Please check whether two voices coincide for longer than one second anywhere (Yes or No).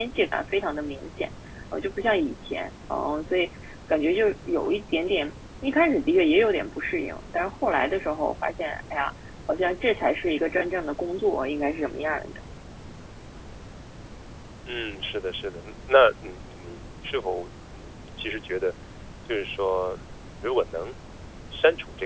No